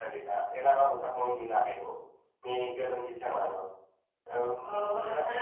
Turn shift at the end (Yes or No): Yes